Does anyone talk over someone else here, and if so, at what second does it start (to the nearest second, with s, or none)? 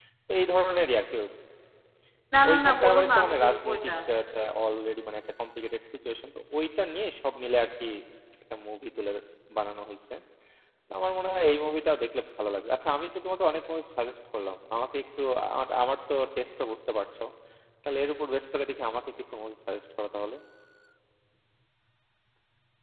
2 s